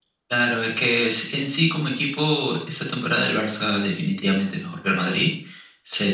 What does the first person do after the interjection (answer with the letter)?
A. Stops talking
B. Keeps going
B